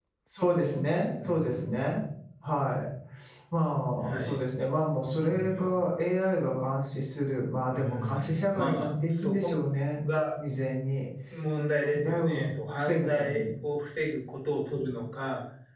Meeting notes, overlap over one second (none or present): present